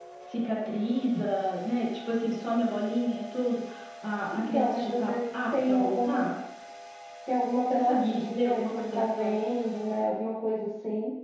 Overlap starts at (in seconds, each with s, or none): 4.3 s